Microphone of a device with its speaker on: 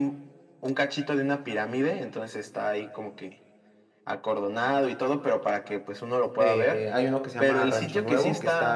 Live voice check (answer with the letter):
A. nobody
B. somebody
B